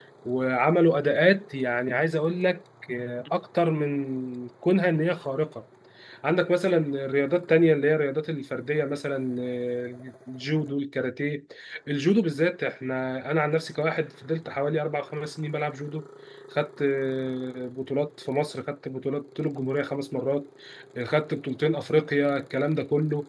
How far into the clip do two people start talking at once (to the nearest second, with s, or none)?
none